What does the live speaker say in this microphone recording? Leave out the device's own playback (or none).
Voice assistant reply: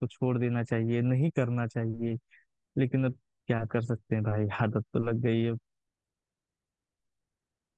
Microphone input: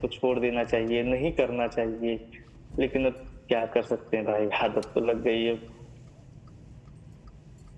none